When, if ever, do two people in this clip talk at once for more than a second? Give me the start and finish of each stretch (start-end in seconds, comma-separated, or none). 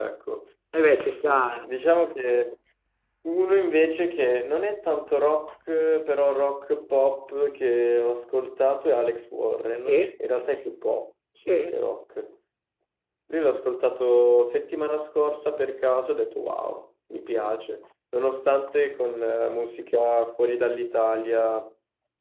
none